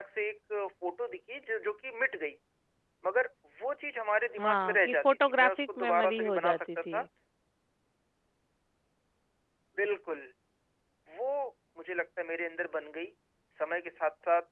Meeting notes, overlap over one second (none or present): present